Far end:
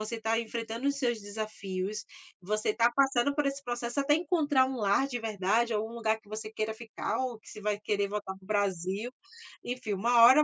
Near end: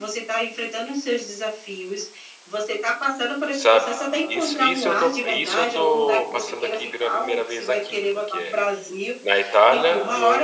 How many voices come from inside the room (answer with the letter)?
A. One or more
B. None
A